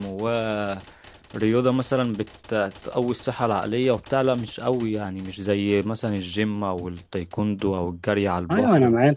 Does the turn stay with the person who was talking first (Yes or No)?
No